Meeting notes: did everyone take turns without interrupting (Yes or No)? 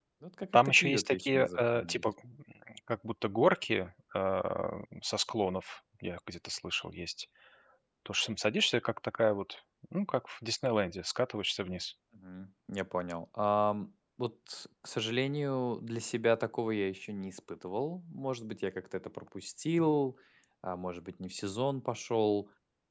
No